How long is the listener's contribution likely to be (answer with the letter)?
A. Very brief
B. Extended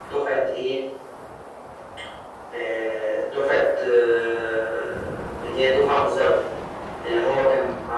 A